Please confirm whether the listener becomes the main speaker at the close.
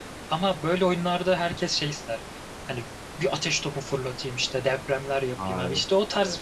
No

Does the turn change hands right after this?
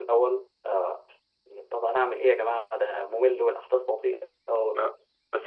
Yes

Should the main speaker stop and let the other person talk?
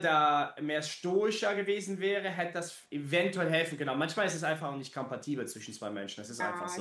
Yes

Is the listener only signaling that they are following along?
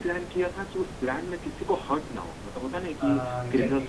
Yes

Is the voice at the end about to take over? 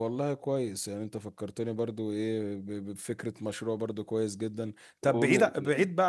No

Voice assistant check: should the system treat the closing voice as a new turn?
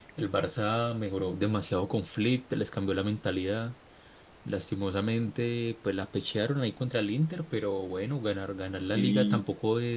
No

